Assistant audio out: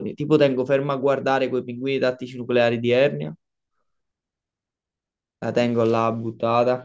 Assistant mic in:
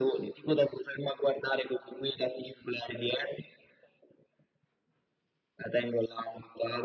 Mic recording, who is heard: echo only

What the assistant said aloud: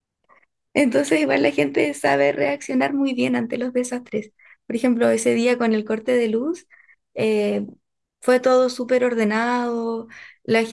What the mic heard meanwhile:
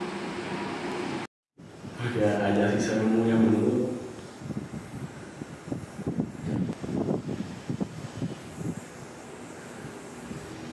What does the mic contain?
user only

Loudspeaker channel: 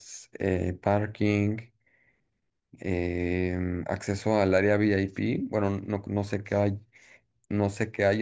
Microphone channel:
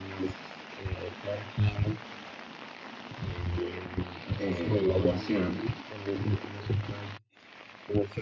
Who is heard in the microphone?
both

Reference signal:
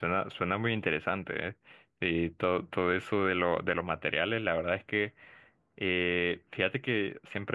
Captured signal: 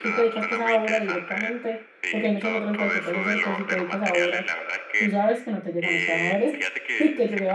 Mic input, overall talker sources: both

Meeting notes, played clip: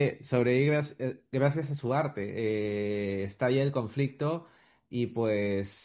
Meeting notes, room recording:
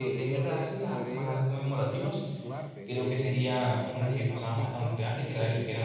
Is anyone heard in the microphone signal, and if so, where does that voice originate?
both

